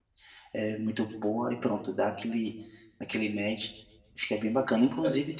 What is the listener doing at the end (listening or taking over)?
listening